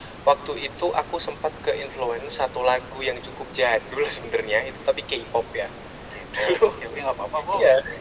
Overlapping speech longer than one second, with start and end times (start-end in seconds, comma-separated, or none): none